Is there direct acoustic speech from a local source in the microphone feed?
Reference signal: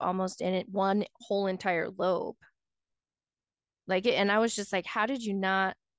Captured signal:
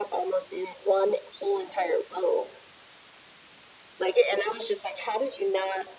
No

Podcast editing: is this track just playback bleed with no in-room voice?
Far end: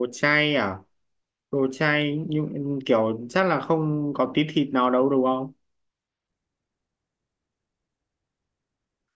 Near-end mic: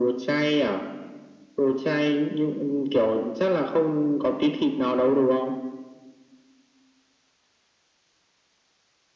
Yes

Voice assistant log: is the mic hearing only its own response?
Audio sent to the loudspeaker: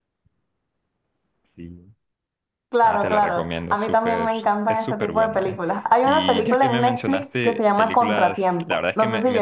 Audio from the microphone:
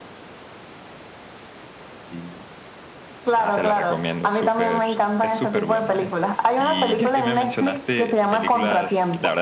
Yes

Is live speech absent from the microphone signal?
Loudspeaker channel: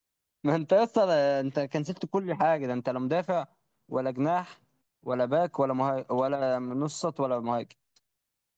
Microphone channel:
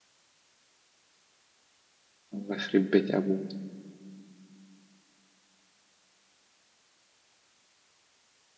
No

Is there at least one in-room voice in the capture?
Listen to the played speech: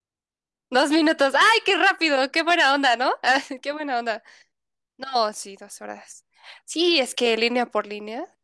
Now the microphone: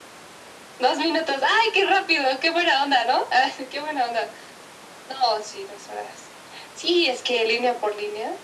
No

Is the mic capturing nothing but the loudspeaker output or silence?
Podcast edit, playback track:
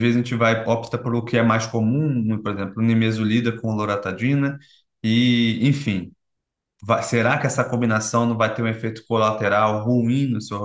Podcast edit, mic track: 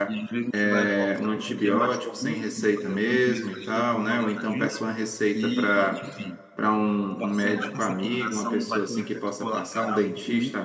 No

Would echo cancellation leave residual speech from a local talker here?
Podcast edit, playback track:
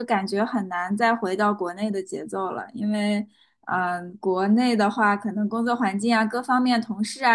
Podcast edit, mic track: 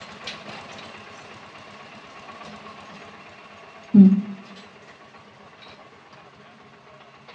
Yes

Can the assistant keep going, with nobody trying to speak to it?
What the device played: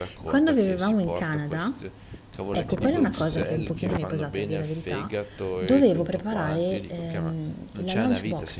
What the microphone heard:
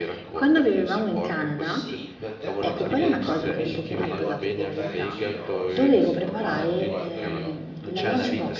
No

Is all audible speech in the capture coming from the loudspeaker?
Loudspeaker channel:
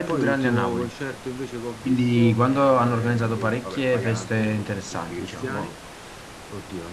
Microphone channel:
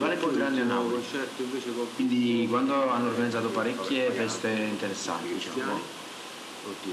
Yes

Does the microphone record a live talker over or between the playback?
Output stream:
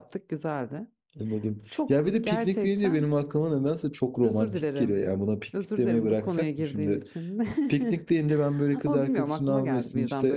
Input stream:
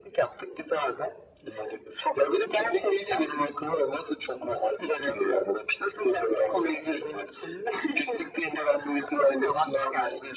No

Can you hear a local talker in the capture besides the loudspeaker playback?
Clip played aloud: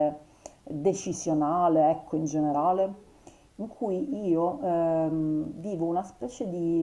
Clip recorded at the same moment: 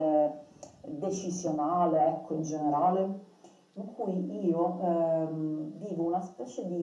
No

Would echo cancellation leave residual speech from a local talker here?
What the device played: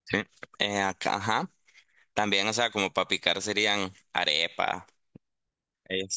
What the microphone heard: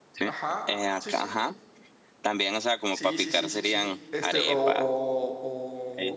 Yes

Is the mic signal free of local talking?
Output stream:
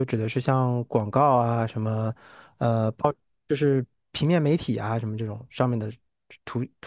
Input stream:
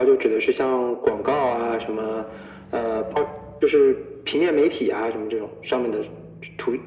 Yes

